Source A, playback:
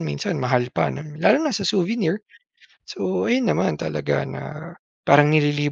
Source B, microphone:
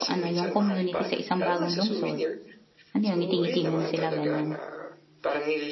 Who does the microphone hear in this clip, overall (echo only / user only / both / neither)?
both